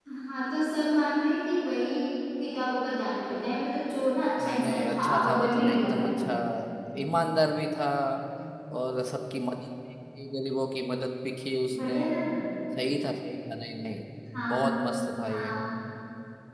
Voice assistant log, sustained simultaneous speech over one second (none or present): present